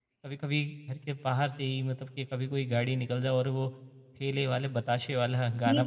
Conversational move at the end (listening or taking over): taking over